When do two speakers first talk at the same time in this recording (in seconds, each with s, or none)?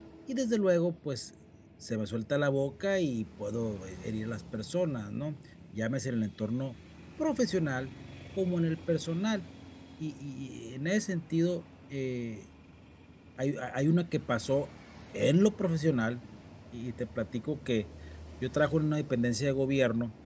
none